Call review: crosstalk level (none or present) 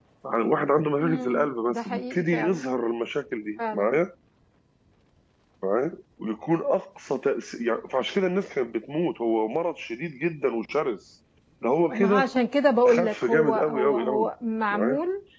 present